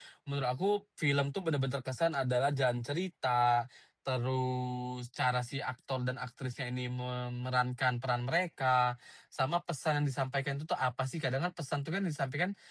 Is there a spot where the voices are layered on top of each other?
No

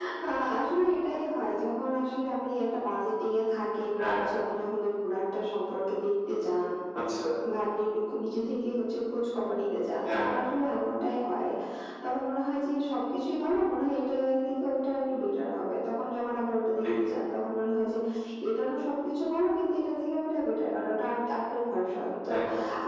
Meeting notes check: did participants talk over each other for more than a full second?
No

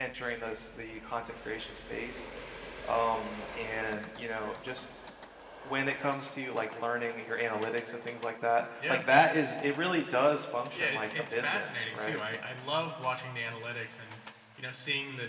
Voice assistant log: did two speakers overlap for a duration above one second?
Yes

